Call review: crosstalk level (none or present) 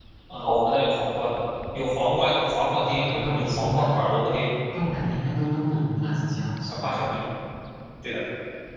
present